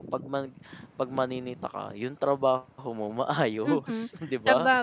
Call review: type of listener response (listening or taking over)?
taking over